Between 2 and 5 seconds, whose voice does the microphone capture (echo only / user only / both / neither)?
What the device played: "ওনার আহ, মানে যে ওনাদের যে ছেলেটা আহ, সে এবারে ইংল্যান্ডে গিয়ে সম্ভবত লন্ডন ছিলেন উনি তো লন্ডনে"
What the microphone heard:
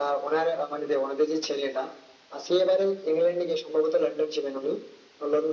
echo only